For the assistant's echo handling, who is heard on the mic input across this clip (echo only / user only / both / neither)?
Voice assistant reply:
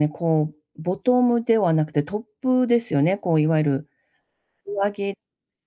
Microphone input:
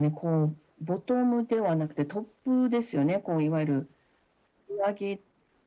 echo only